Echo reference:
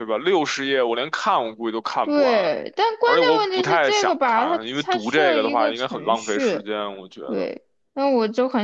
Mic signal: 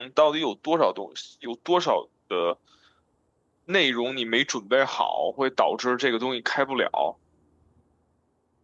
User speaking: Yes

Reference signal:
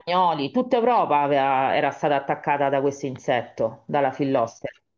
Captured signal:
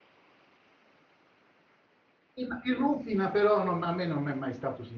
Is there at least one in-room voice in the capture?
Yes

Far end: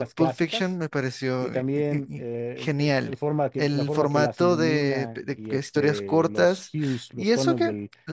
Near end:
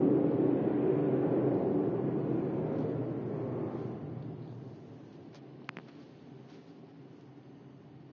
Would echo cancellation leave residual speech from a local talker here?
No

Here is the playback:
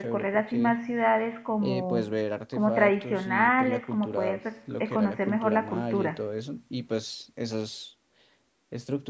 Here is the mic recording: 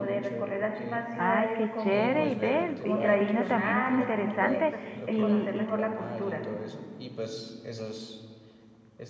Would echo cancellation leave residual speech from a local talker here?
Yes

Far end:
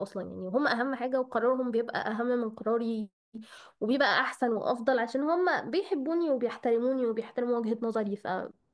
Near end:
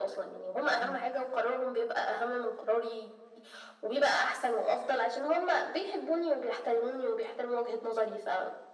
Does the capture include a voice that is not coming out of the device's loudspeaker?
Yes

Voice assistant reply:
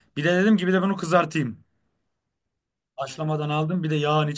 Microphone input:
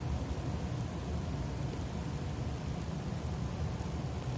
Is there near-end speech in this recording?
No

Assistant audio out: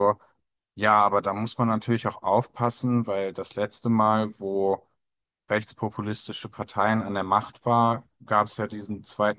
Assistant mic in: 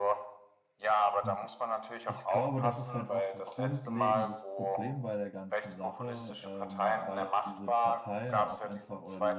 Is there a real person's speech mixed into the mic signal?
Yes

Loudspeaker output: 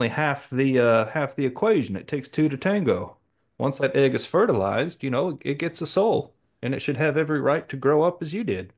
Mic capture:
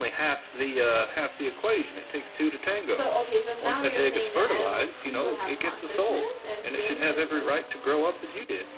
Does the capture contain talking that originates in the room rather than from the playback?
Yes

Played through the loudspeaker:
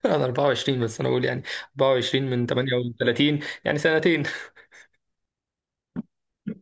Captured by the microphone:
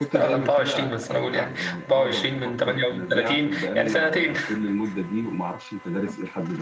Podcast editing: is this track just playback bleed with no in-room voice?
No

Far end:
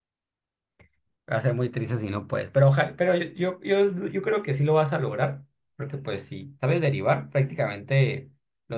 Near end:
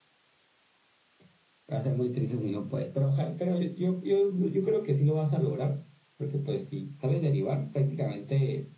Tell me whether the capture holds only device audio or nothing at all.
Yes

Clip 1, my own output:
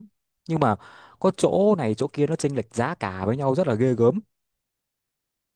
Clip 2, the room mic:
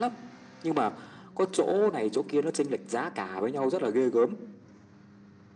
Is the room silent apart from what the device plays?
Yes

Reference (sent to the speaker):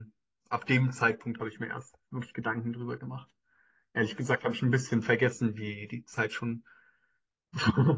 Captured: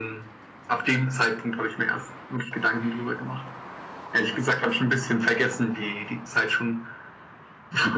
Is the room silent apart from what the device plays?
Yes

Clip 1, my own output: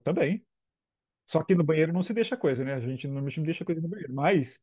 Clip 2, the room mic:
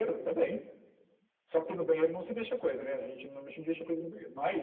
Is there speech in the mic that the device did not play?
No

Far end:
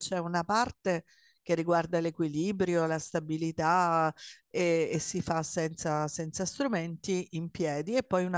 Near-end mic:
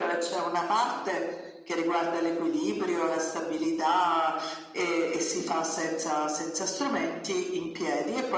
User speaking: No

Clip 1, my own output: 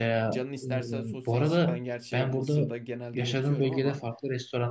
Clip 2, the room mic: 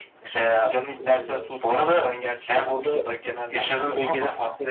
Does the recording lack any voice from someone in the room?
Yes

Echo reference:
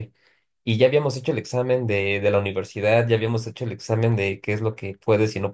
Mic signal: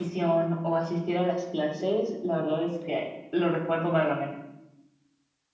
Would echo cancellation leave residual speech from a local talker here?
Yes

